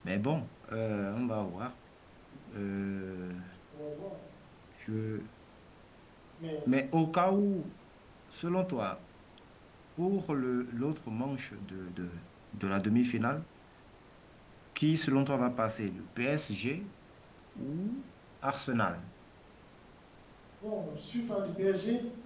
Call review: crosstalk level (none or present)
none